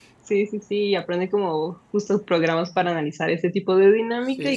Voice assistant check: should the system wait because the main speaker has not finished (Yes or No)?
Yes